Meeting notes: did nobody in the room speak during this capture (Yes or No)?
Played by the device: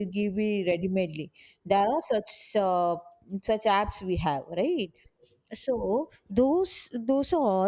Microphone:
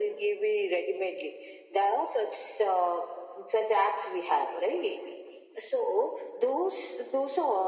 Yes